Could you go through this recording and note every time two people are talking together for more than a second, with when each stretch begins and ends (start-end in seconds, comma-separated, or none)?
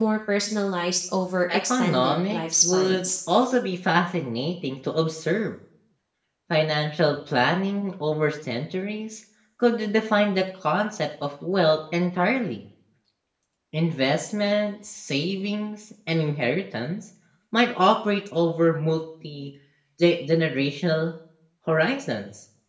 1.5-3.1